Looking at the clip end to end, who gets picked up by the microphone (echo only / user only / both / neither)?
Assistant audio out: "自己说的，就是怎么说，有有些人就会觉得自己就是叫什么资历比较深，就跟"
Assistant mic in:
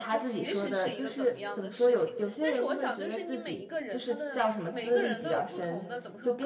both